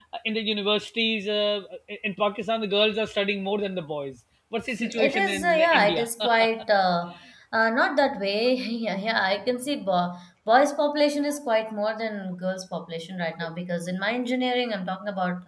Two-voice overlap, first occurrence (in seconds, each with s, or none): 4.8 s